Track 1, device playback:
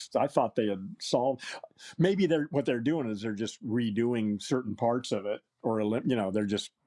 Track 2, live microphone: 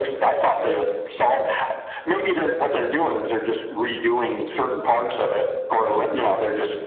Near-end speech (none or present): none